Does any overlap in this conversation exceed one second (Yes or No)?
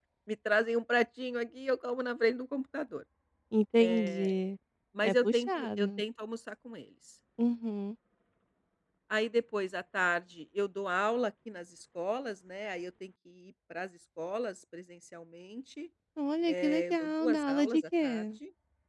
Yes